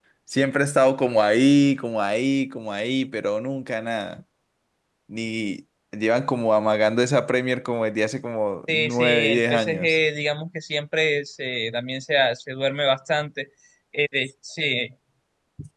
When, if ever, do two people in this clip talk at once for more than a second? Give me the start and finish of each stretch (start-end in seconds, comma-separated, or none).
8.7-10.0